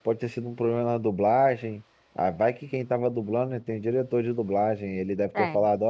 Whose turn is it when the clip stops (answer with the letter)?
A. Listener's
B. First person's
B